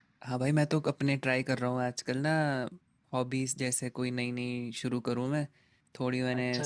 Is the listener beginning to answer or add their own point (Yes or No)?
No